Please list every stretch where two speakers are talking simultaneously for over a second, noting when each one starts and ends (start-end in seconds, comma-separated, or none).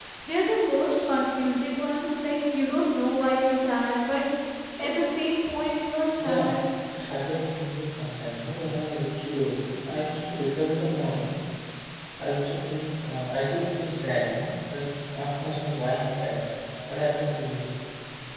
none